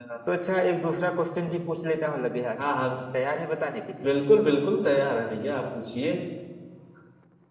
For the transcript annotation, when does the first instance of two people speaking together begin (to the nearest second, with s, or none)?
none